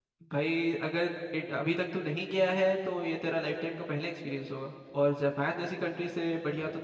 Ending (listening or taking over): listening